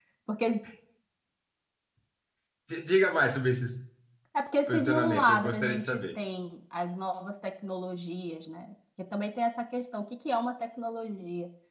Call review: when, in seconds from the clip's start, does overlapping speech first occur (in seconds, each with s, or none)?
4.7 s